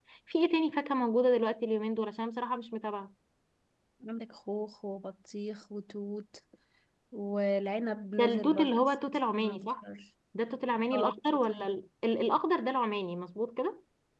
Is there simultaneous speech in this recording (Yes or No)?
Yes